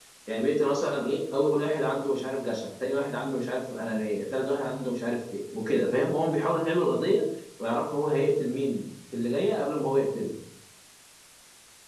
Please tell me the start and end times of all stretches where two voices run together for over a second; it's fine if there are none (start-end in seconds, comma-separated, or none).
none